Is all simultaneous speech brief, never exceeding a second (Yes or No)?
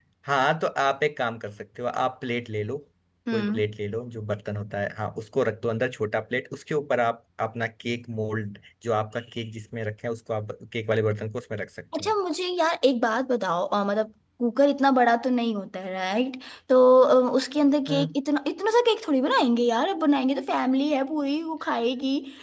Yes